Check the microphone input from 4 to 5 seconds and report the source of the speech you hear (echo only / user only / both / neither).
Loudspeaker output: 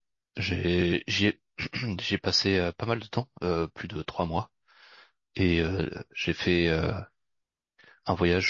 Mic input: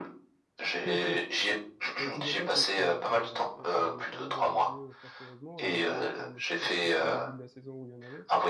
both